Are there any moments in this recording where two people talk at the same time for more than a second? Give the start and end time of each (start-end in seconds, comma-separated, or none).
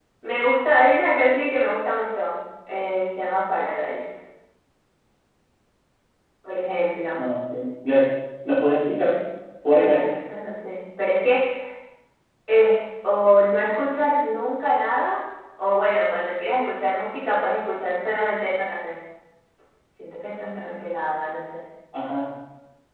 none